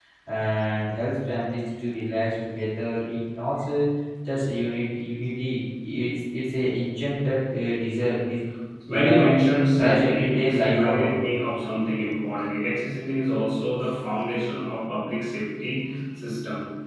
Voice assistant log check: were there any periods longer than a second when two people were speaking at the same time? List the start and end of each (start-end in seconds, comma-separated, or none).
9.8-11.2